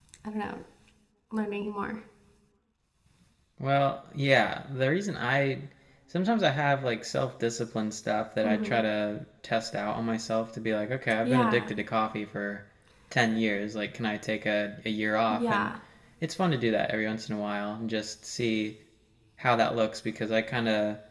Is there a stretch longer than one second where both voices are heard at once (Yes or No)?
No